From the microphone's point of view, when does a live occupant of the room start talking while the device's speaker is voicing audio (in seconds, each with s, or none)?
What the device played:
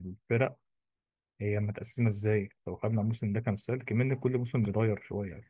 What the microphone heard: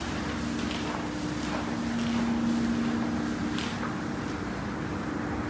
none